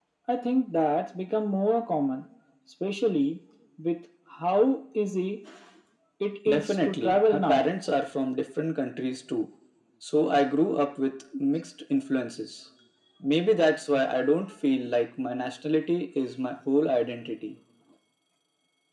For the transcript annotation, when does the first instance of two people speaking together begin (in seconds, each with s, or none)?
6.5 s